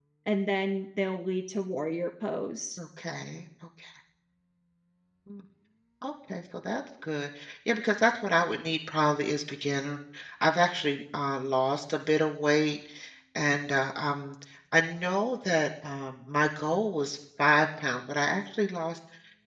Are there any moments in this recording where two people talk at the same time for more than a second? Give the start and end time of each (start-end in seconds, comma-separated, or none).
none